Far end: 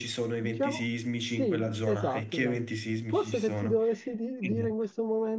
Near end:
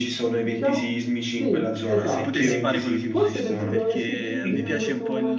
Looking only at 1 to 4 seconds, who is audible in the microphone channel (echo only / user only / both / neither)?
both